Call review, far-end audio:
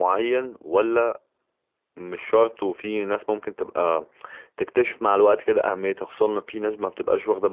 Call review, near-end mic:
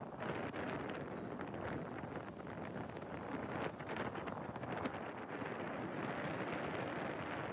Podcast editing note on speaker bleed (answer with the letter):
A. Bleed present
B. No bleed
B